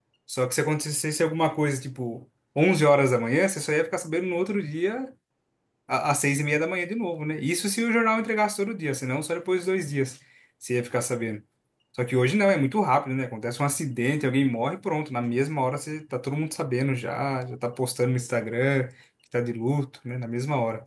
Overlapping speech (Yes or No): No